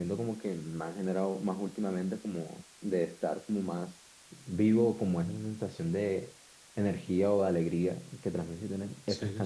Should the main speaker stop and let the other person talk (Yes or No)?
Yes